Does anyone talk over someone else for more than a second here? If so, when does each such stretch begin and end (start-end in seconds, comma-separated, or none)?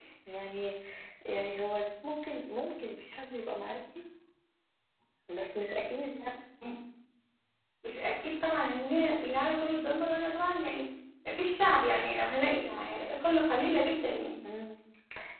none